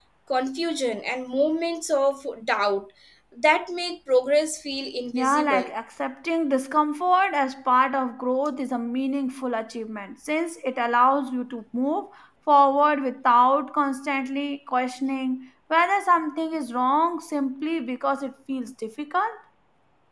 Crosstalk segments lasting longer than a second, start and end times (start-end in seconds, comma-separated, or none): none